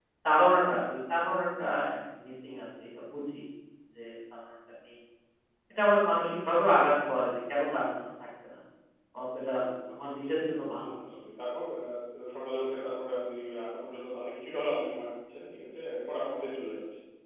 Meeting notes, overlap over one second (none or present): none